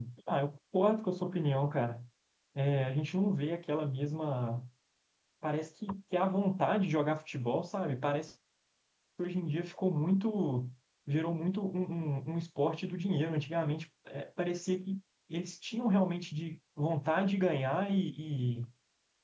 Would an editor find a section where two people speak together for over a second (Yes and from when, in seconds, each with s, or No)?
No